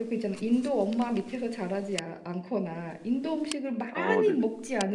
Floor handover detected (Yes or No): No